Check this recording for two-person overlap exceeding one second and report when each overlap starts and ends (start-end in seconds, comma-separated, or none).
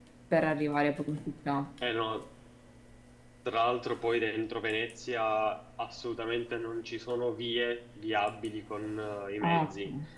none